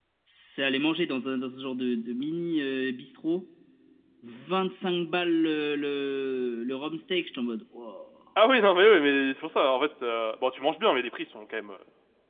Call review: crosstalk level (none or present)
none